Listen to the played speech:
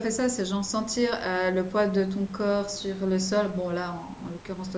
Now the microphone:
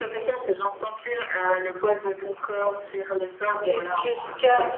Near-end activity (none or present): present